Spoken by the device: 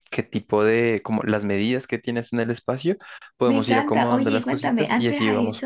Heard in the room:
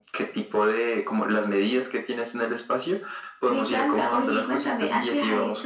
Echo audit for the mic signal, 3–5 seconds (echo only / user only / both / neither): echo only